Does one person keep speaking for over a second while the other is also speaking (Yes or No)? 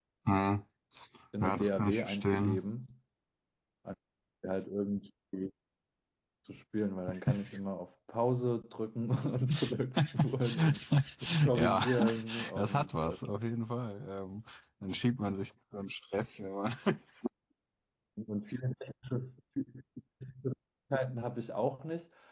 Yes